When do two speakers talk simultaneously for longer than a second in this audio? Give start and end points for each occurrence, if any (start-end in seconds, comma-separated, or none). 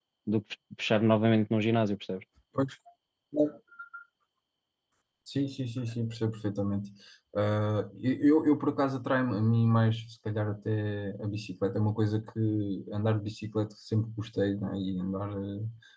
none